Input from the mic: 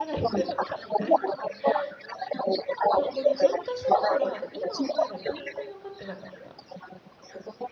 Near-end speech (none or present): present